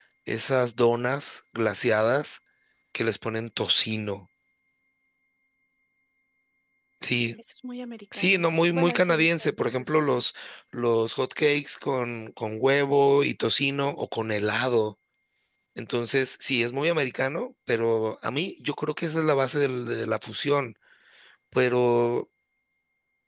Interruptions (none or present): present